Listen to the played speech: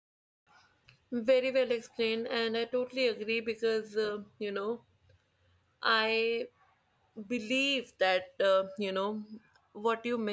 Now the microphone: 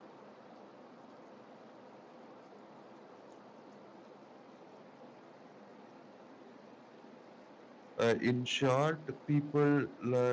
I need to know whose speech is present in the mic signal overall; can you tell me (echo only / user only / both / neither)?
user only